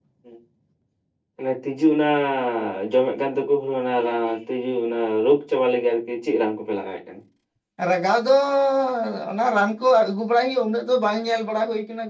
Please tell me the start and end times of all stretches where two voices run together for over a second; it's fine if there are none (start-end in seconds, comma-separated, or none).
none